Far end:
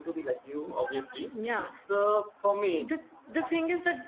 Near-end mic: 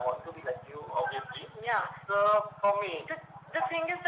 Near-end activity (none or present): none